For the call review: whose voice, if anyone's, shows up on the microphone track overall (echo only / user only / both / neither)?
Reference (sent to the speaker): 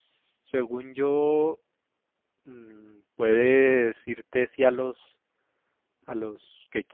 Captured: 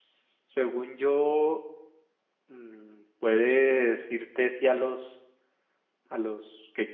echo only